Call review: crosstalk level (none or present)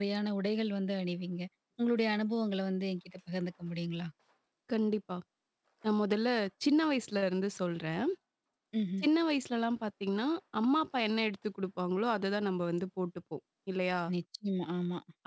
none